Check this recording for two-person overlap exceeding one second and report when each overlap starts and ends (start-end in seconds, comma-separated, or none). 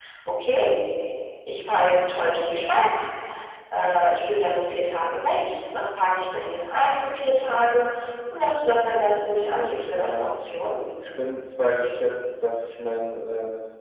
8.7-10.3